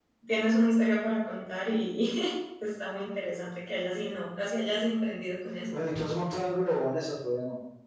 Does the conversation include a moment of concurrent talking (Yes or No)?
No